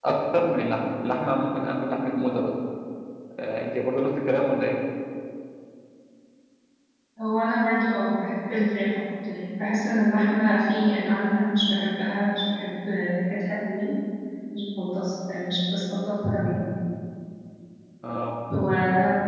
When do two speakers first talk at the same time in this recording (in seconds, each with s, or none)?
none